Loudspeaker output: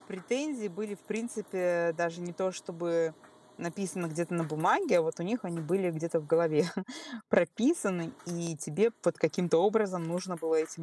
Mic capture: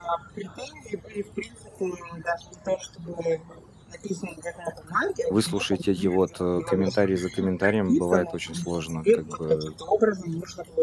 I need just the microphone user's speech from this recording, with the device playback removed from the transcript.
выслушать эти вот, э, комментарий за комментарием бывает очень сложно, как бы.

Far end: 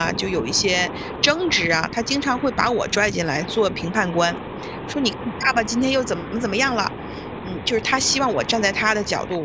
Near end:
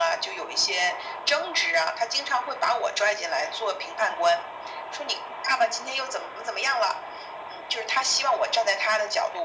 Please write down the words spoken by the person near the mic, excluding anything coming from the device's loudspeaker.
none

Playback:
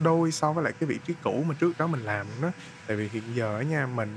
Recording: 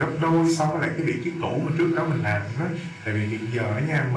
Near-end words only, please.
none

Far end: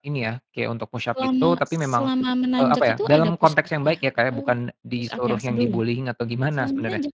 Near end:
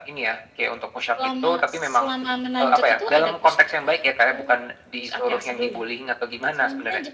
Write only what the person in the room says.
none

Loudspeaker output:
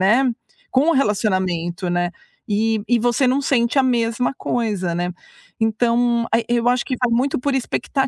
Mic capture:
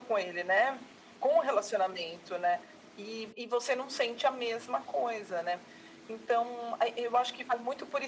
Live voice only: none

